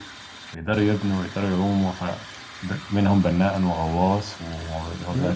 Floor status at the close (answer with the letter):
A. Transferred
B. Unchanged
B